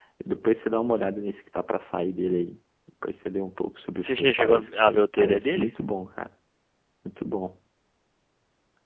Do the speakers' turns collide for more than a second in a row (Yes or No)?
Yes